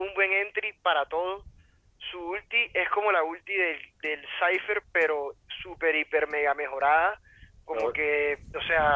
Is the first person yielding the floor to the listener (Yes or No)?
No